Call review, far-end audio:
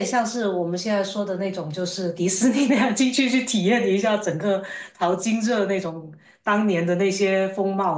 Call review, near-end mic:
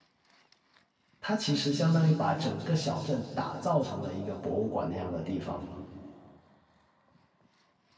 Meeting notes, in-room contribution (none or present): present